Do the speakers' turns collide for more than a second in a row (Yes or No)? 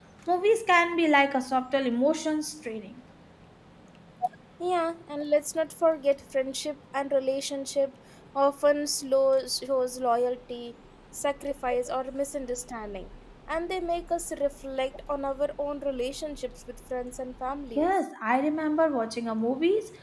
No